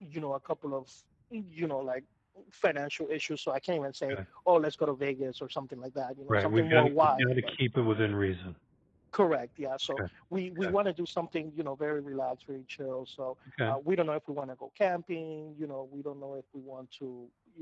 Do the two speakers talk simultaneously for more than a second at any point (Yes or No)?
Yes